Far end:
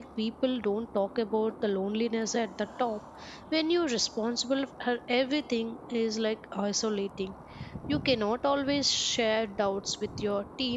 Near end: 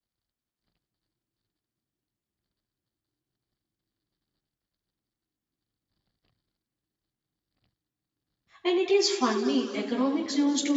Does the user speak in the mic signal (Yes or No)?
Yes